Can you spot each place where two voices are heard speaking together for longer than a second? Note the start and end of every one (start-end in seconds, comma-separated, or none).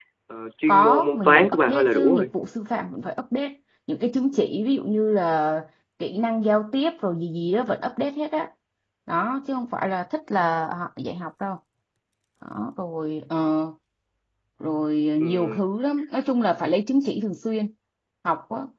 0.7-2.3